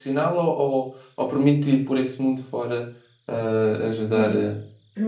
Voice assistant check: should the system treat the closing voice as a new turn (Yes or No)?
Yes